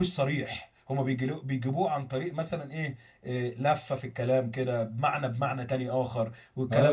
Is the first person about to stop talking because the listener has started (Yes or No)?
Yes